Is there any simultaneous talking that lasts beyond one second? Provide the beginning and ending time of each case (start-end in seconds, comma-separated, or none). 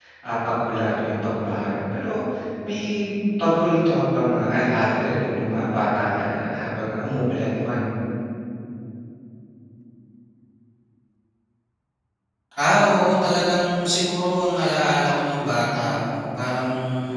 none